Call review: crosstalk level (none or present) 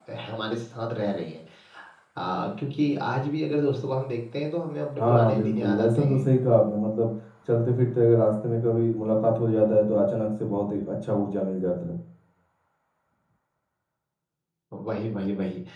present